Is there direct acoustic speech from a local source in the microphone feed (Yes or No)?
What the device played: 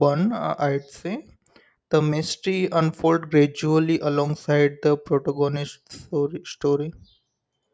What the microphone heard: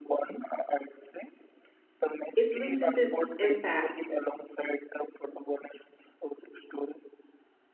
Yes